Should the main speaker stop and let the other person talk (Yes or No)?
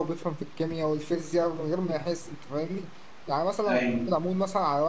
No